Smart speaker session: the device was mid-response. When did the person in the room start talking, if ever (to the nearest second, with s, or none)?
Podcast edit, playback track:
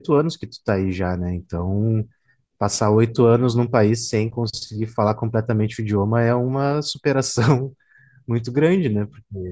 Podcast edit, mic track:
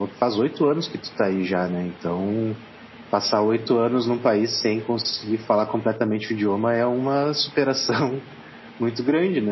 none